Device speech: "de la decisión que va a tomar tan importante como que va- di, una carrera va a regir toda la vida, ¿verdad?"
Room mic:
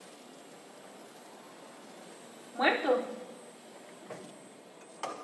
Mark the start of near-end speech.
2.5 s

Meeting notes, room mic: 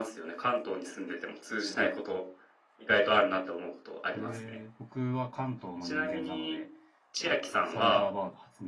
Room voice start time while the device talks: 4.1 s

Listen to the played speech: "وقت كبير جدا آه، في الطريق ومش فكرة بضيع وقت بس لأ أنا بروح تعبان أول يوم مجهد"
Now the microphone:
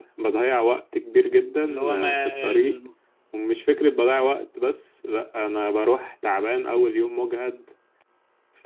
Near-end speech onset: 1.6 s

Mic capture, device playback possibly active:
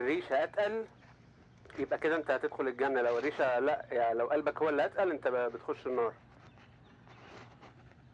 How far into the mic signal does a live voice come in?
none

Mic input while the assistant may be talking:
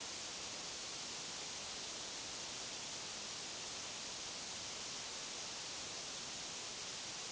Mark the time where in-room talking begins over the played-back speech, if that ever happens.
none

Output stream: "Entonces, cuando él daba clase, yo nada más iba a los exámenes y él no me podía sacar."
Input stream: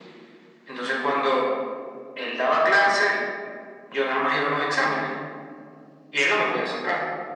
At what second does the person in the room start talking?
none

